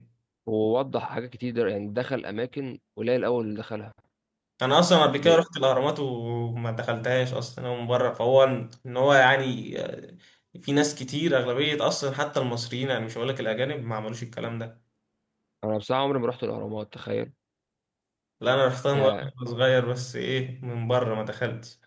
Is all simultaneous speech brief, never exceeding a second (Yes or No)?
Yes